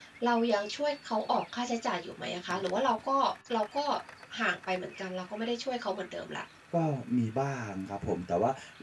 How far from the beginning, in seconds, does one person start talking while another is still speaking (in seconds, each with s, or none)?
none